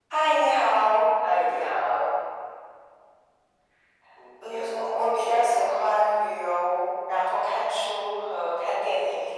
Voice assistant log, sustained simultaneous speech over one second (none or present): present